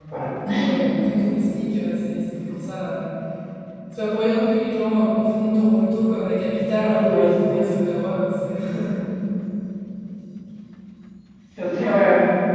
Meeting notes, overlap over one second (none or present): none